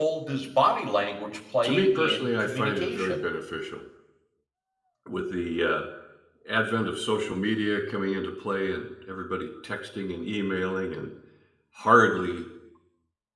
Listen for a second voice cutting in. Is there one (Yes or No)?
Yes